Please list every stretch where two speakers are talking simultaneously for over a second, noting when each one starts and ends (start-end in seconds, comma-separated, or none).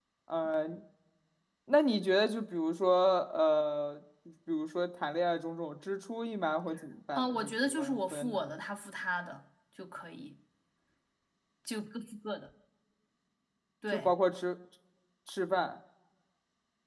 7.2-8.4